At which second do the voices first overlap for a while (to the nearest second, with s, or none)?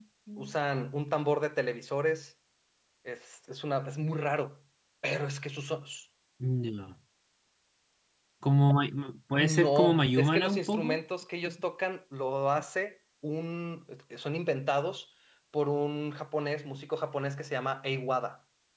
9 s